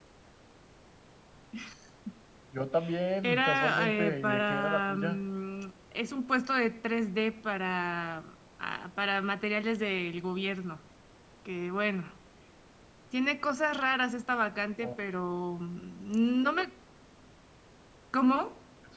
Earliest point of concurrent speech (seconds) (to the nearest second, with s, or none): 3 s